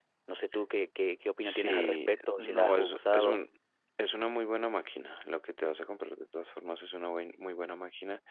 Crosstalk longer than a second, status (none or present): present